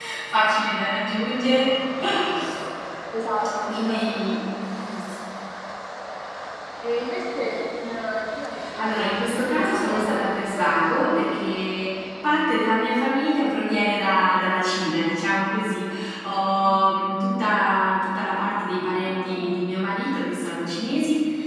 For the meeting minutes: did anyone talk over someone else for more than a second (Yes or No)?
Yes